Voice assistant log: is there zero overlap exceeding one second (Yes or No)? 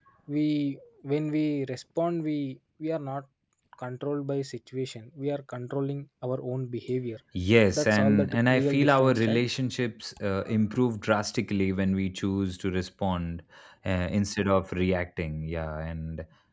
No